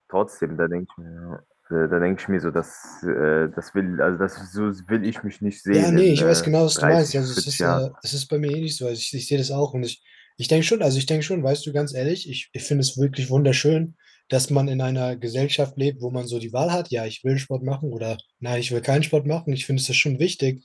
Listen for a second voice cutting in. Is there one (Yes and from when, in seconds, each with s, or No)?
Yes, from 5.7 s